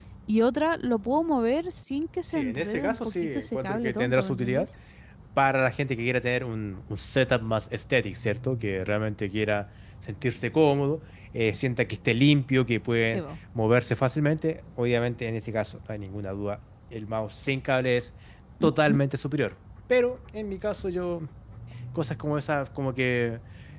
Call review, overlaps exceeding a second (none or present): present